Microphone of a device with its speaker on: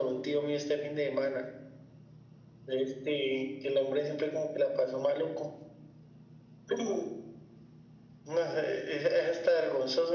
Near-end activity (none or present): none